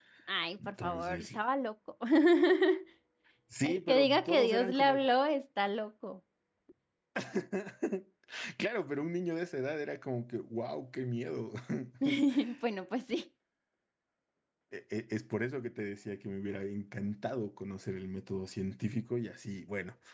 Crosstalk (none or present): present